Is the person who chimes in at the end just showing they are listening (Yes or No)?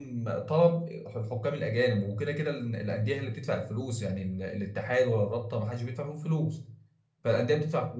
Yes